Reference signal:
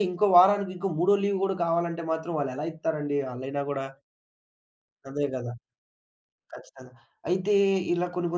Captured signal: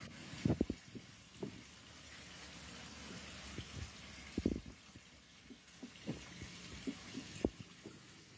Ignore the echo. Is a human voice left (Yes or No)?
No